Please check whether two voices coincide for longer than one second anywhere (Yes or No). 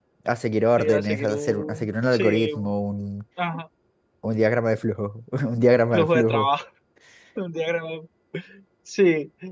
Yes